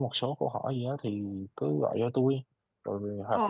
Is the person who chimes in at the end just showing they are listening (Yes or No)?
Yes